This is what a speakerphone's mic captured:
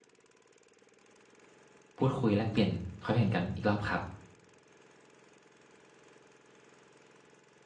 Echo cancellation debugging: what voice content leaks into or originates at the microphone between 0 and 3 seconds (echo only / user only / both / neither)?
user only